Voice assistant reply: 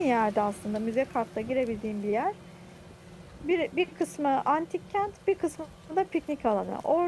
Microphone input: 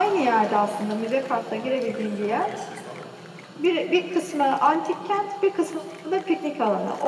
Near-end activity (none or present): present